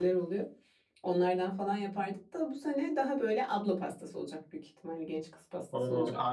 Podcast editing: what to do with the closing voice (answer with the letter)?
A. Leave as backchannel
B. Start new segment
B